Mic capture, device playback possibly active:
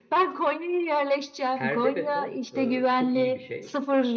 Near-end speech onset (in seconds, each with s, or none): 1.5 s